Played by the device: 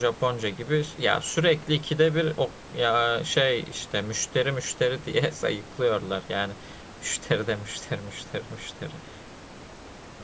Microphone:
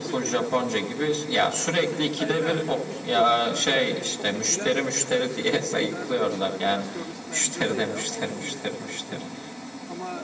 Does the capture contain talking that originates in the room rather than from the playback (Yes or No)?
Yes